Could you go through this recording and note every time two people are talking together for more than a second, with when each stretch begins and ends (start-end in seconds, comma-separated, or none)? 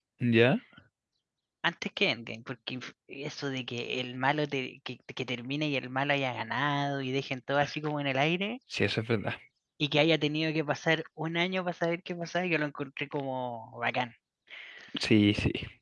none